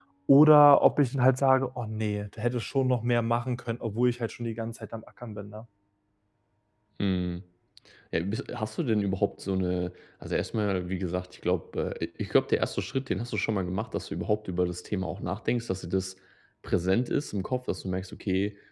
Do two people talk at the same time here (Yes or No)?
No